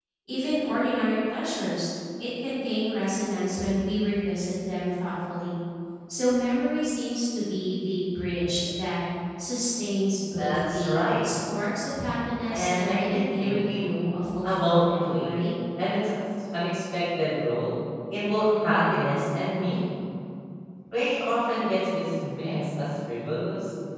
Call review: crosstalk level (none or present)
present